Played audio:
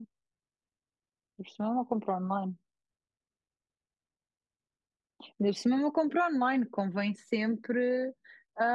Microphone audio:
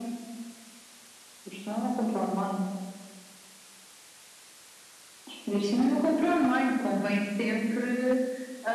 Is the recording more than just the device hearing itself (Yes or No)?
No